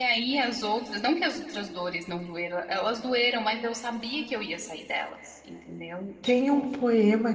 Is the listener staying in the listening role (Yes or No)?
No